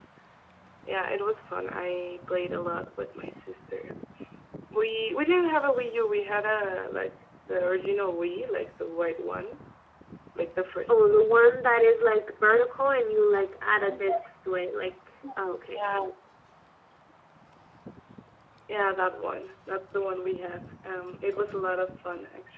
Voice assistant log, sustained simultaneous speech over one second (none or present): none